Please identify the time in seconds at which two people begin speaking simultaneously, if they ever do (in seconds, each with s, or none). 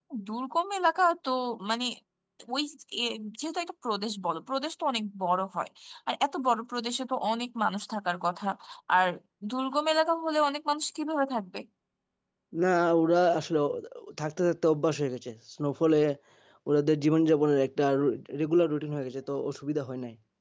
none